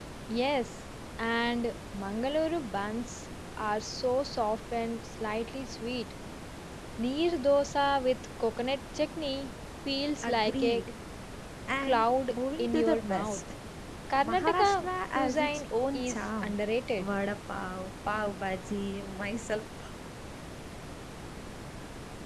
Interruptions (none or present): present